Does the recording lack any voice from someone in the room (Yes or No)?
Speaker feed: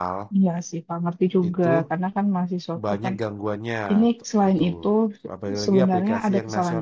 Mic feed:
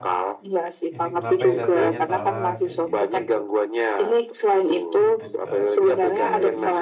No